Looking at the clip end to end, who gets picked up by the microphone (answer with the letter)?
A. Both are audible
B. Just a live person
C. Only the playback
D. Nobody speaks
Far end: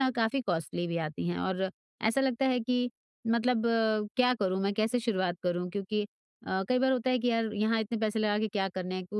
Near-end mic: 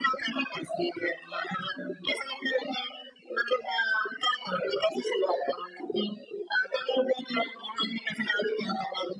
C